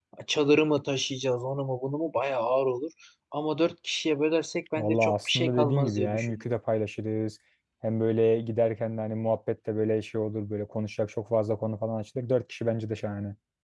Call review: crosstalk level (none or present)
present